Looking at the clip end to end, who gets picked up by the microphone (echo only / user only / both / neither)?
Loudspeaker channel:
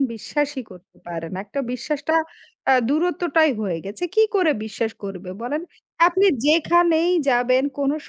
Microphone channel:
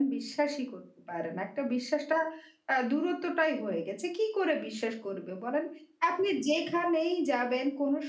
echo only